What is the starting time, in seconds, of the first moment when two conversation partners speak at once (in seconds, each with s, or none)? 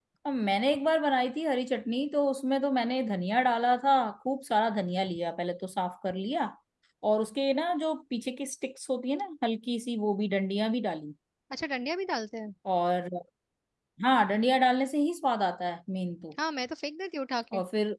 none